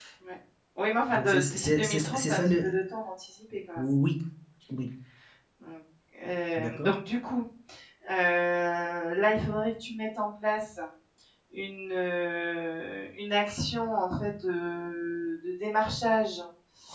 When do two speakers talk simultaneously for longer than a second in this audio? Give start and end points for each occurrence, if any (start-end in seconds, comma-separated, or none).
1.1-2.7